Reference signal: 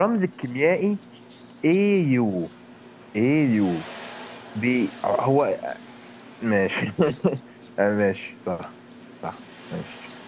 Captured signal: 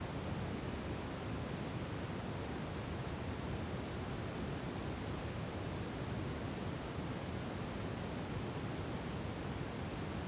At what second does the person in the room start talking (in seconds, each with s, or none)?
none